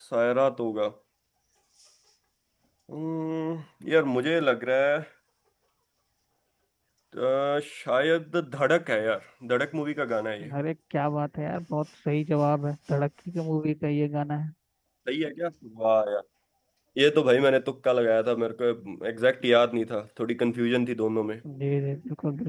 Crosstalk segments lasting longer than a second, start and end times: none

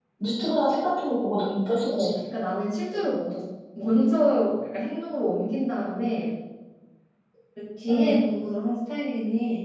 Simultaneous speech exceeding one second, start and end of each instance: none

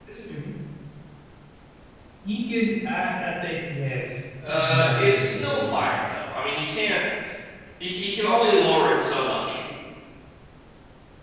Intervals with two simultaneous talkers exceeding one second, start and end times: 4.5-6.0

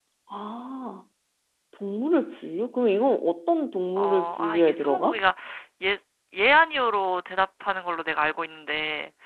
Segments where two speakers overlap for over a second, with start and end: 4.0-5.2

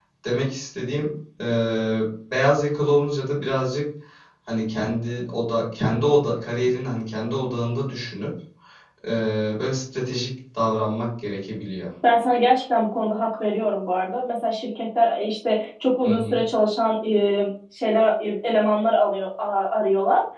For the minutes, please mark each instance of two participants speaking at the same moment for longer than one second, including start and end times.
none

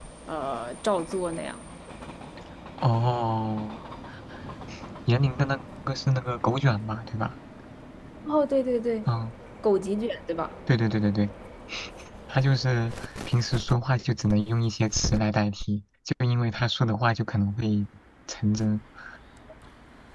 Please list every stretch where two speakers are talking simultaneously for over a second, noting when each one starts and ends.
none

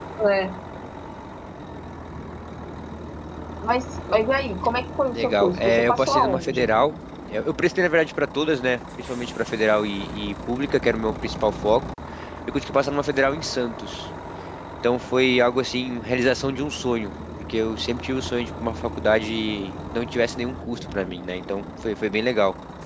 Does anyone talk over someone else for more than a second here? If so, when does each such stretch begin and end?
5.1-6.7

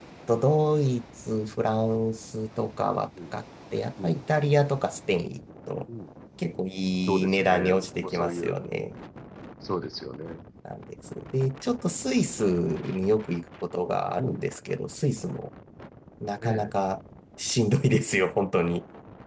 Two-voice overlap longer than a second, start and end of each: 7.1-8.6

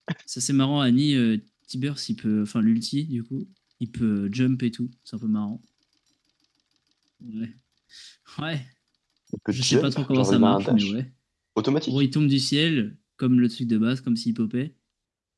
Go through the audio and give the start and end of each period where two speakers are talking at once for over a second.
9.5-10.9

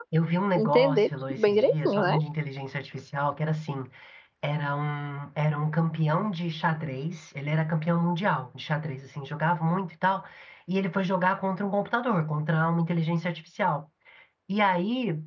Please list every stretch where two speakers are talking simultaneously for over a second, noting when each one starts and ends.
0.6-2.2

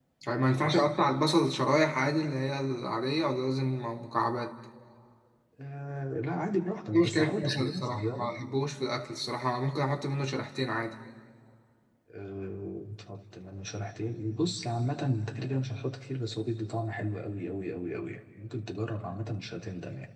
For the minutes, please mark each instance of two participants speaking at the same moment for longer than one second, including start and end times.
6.9-8.3

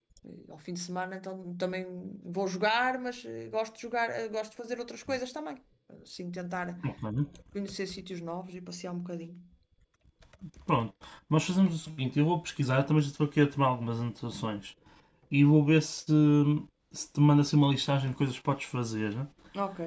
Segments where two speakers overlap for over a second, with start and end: none

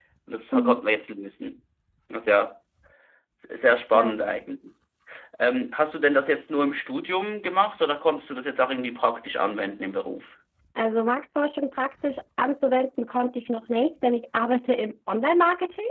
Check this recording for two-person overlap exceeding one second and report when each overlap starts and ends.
none

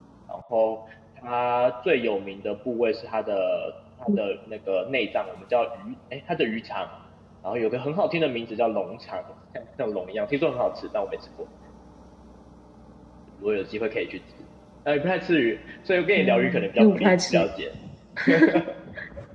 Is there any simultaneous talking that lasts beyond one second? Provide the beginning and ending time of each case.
16.2-17.4

